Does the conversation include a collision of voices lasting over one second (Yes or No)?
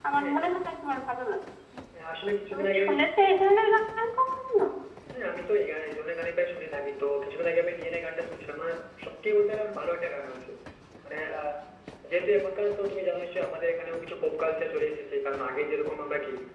No